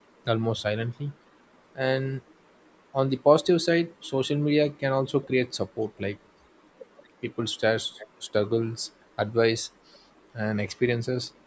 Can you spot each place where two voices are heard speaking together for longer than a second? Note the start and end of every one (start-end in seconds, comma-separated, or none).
none